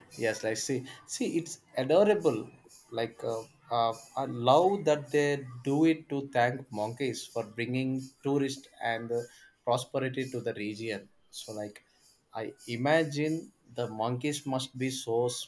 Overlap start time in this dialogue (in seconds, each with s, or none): none